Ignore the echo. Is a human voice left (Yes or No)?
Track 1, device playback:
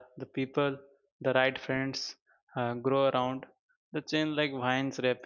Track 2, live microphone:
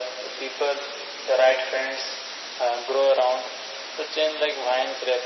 No